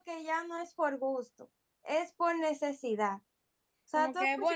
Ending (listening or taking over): taking over